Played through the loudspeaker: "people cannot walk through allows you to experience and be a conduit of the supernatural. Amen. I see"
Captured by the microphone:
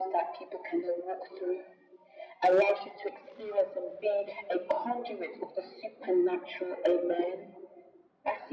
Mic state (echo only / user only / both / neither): echo only